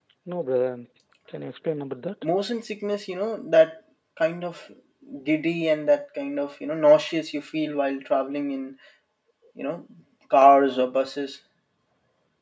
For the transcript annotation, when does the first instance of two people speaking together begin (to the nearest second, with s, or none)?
none